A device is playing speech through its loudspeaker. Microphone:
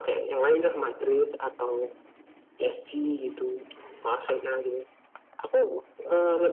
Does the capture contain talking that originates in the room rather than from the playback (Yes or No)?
No